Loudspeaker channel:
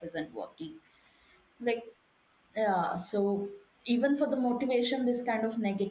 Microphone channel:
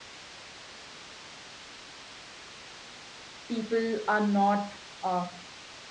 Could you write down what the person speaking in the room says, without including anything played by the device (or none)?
people are not uh,